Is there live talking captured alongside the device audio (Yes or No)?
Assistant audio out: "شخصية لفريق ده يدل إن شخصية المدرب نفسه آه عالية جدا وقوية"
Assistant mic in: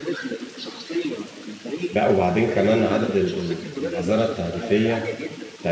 Yes